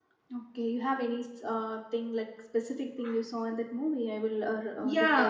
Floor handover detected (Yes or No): Yes